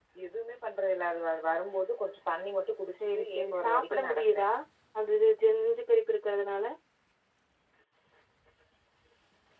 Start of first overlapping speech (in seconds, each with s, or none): 2.9 s